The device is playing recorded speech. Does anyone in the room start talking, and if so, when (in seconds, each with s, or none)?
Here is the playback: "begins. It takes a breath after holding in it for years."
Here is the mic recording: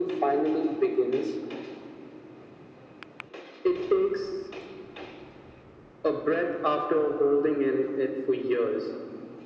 none